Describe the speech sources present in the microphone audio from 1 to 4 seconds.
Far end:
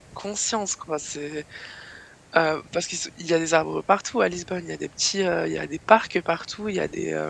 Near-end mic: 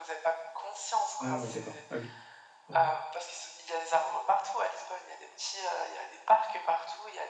both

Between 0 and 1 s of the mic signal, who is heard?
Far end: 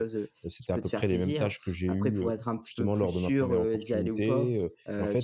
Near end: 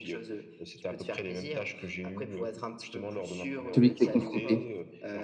echo only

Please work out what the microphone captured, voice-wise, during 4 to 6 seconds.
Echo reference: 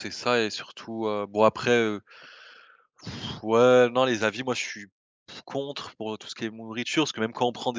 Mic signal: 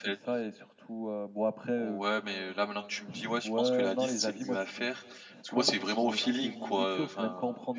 both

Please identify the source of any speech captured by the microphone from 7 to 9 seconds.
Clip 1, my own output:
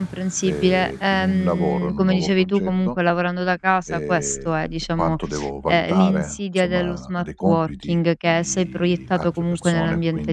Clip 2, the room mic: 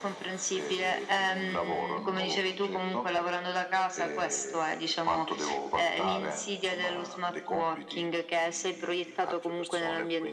echo only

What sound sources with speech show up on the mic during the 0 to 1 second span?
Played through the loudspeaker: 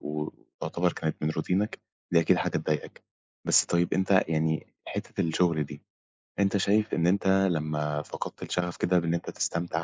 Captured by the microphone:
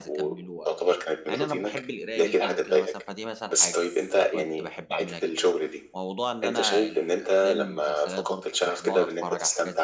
both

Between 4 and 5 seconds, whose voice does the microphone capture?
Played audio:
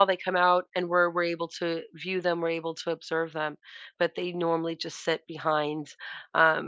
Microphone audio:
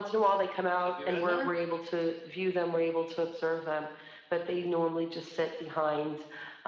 echo only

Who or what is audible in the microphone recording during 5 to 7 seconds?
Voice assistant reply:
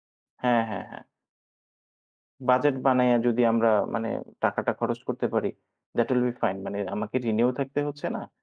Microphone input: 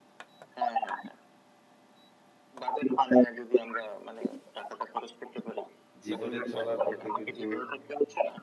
both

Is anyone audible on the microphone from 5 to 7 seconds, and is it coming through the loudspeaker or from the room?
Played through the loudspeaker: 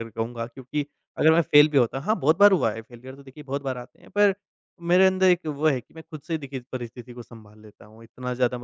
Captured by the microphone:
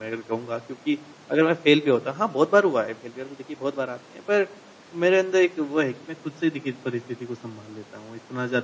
echo only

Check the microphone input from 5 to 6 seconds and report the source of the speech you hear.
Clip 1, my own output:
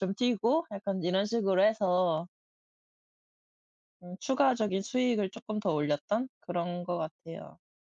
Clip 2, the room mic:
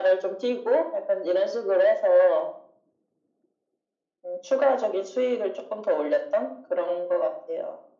echo only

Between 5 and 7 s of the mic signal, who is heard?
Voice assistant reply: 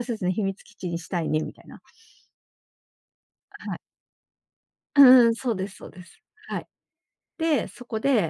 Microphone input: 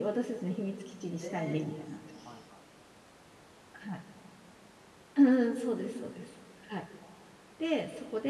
echo only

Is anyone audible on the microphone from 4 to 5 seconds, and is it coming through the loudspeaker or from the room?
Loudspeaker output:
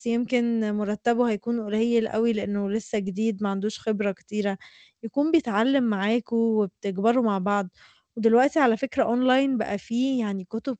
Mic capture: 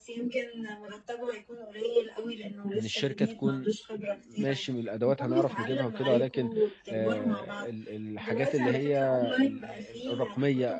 both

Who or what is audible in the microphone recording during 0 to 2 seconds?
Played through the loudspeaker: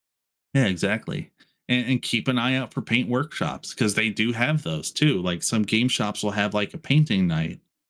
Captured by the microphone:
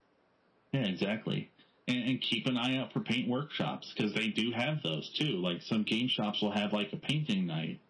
echo only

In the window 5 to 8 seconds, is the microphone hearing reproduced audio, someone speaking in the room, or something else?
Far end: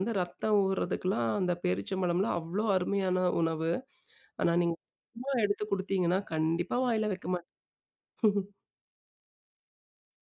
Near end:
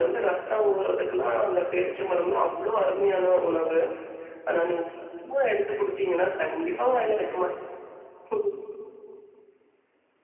echo only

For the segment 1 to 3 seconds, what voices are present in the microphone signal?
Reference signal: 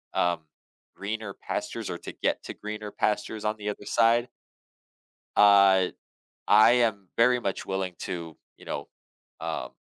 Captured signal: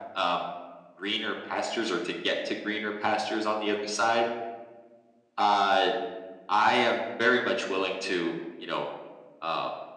echo only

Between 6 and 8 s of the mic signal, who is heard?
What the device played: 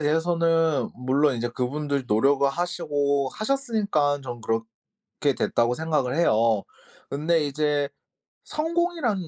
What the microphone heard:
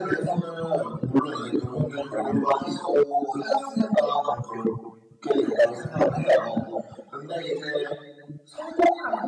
echo only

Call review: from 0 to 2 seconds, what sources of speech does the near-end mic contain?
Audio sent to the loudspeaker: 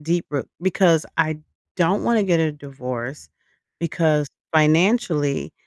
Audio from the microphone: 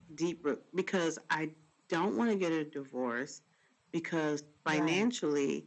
echo only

